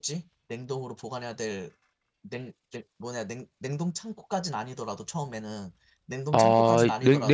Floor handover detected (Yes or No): Yes